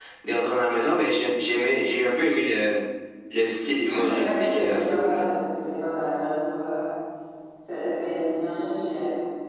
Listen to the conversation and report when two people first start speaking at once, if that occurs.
3.9 s

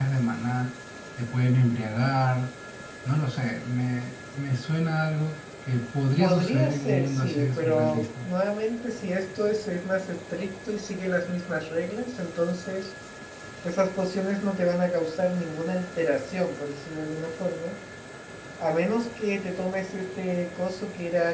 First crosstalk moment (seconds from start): 6.2 s

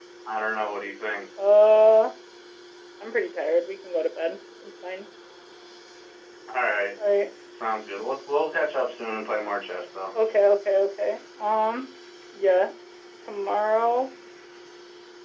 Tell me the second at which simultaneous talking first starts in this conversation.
none

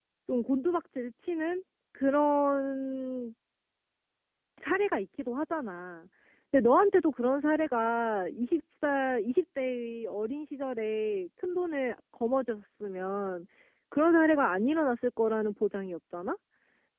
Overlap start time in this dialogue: none

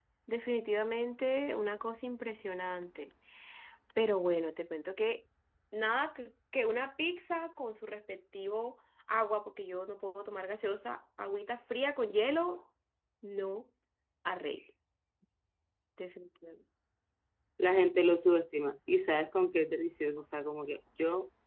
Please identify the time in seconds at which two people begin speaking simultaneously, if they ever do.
none

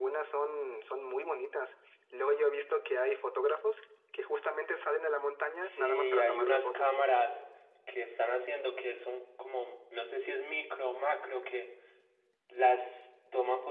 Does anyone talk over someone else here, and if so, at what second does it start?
5.6 s

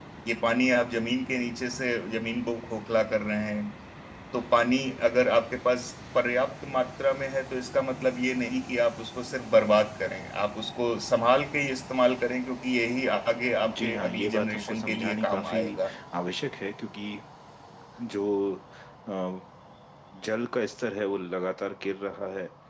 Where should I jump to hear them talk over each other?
13.6 s

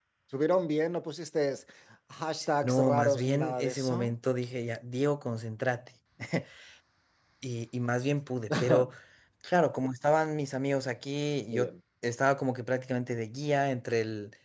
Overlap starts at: 2.6 s

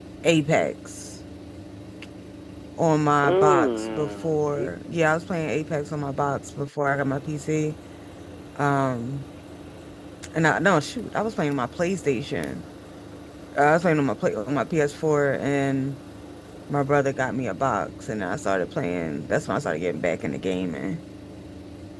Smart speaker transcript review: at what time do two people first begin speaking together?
3.2 s

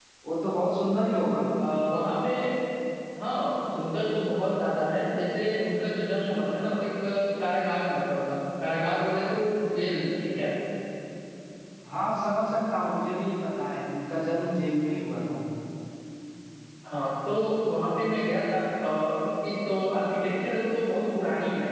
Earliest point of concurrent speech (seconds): none

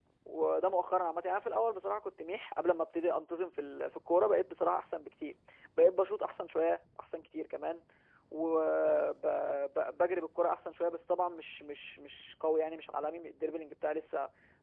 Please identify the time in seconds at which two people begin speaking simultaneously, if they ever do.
none

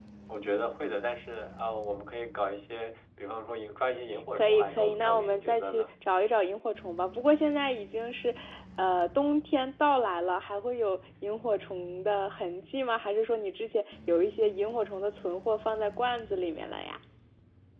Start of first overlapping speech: 4.4 s

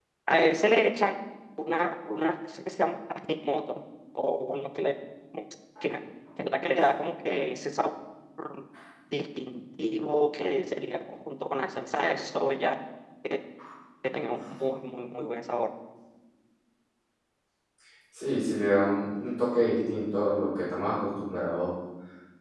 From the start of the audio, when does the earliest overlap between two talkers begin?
none

